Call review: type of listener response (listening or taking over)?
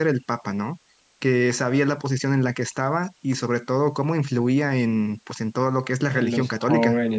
taking over